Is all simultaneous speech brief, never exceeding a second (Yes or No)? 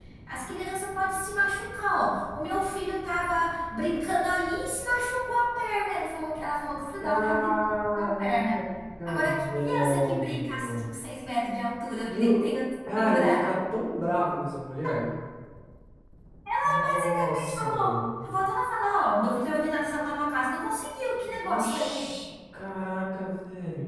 No